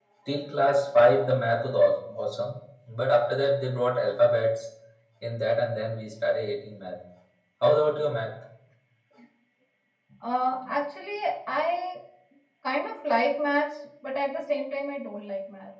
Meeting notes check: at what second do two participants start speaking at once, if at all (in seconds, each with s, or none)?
none